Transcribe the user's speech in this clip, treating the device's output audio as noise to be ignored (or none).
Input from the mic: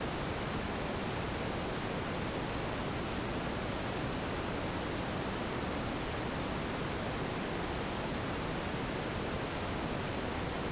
none